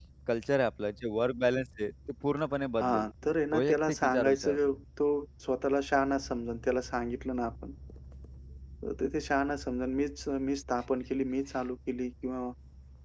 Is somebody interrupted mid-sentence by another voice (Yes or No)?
Yes